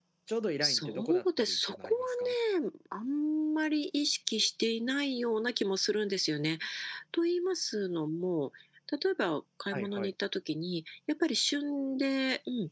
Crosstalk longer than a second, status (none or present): present